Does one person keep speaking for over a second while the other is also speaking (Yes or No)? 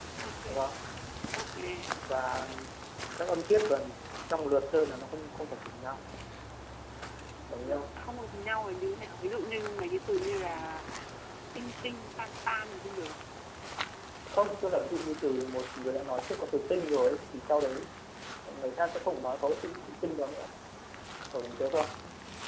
No